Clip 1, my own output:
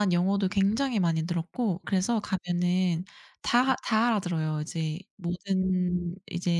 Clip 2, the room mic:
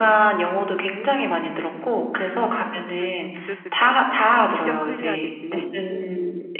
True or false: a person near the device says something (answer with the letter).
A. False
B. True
B